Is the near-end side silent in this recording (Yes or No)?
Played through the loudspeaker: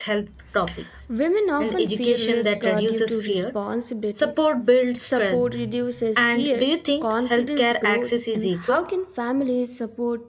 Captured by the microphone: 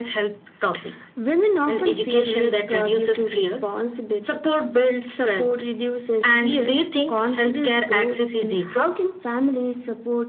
Yes